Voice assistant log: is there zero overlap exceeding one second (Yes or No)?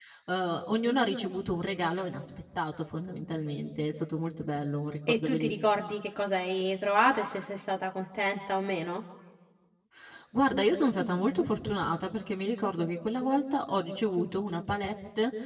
Yes